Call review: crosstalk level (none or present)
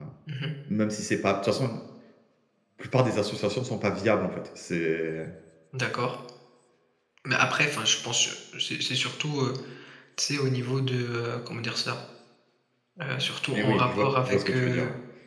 present